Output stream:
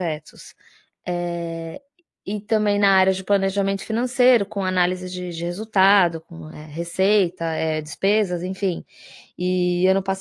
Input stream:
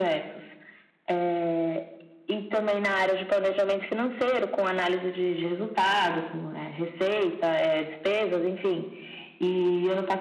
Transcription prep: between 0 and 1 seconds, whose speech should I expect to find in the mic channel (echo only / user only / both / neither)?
echo only